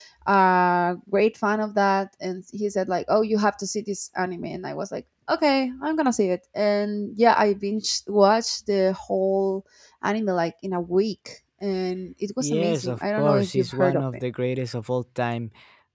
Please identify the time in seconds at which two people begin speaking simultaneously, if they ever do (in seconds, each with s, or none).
12.4 s